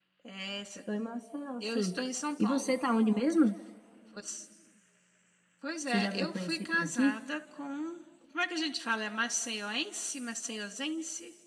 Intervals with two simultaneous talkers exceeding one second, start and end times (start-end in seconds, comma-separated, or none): 5.9-7.1